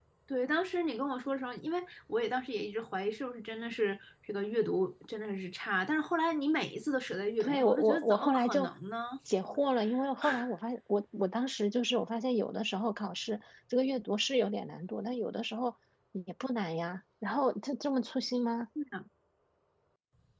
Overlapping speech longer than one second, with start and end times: 7.4-8.7

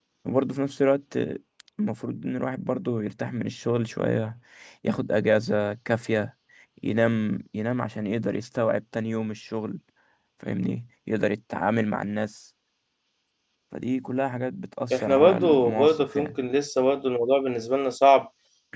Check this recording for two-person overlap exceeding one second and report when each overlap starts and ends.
14.9-16.4

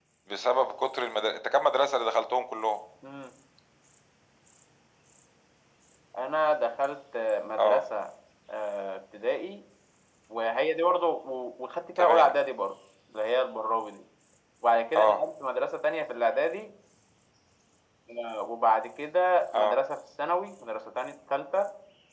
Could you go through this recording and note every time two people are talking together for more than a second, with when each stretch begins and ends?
none

